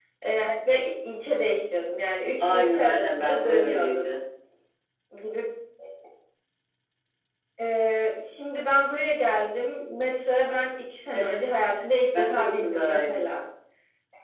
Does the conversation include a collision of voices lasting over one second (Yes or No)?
Yes